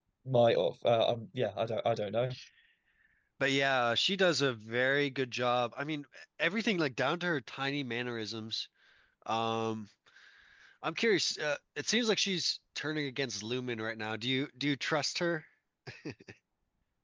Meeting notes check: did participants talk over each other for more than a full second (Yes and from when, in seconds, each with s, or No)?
No